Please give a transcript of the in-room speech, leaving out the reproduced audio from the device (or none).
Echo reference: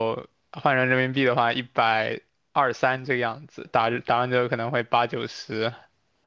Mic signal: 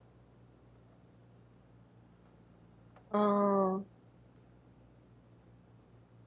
嗯，